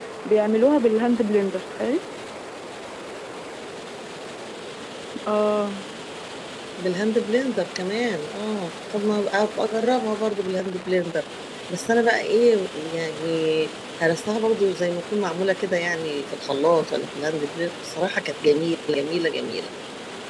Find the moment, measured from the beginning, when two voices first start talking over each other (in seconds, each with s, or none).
none